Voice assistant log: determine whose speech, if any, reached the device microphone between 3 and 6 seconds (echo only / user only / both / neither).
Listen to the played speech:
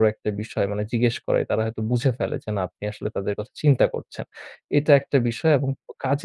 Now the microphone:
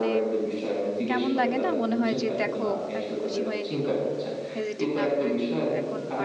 both